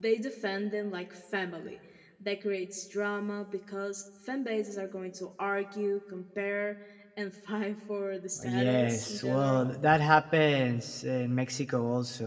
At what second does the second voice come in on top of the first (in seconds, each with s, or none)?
8.4 s